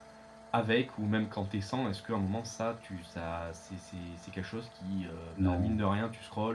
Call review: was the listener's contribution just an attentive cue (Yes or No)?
Yes